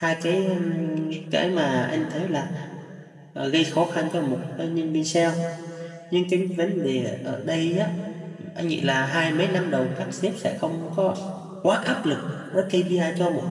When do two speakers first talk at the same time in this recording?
none

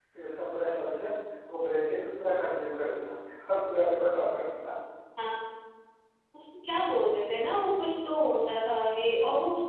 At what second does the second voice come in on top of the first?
none

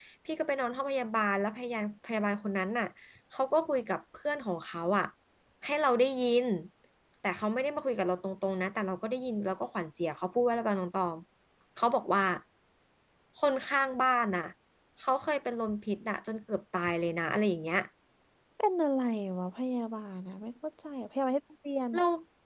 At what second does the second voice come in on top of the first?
none

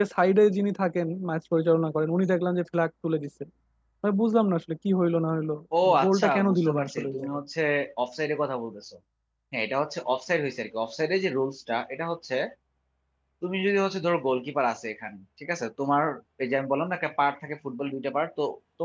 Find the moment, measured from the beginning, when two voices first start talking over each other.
6.0 s

